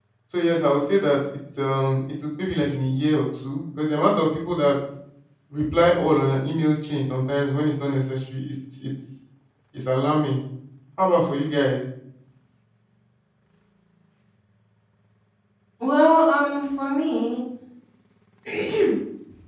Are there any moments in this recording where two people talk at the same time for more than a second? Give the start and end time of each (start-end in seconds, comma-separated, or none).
none